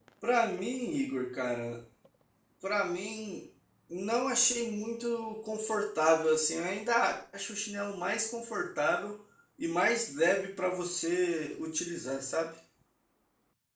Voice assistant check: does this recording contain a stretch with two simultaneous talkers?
No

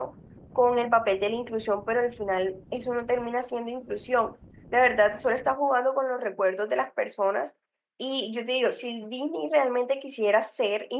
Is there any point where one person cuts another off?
No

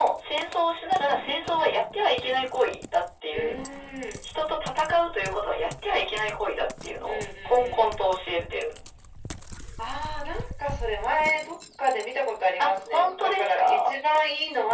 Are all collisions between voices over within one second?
No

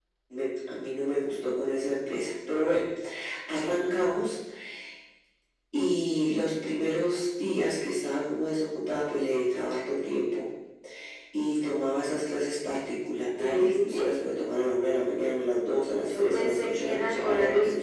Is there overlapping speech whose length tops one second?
Yes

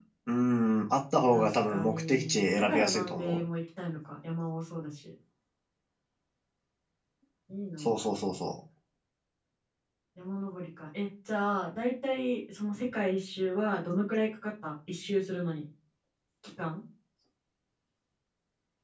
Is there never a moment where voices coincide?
No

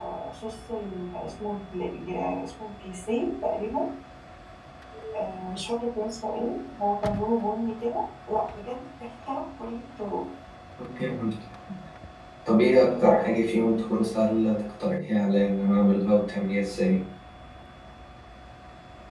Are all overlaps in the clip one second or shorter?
Yes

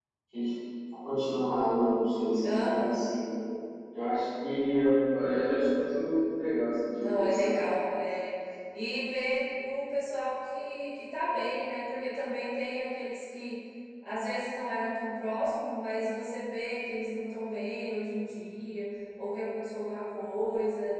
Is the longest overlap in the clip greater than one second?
No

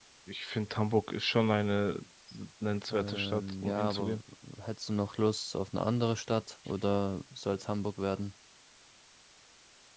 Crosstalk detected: Yes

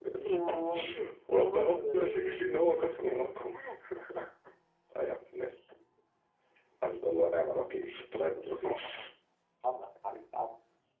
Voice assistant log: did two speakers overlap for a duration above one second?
Yes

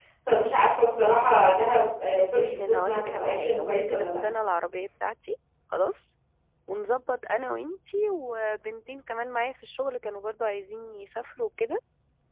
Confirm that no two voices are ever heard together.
No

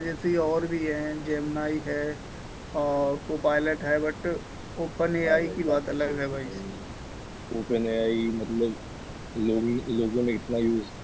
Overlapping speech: Yes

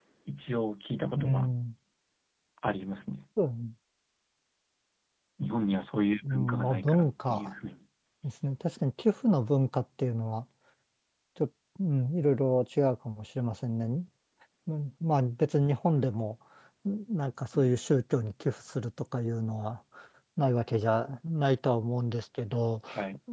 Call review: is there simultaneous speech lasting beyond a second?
Yes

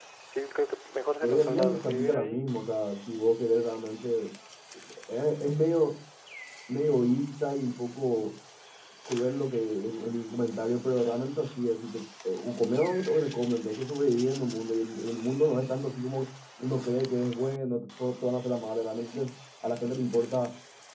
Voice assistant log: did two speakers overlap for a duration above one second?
Yes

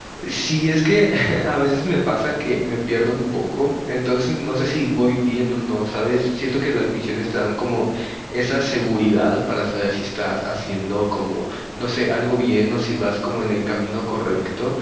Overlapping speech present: No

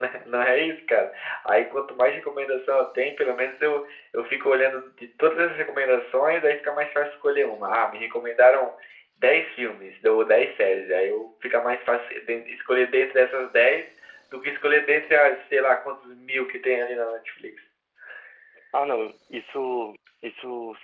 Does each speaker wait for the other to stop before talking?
Yes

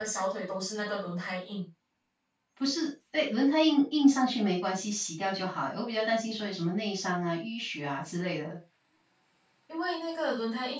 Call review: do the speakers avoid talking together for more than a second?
Yes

